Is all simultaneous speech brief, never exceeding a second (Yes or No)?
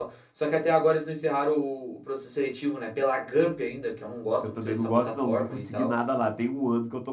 No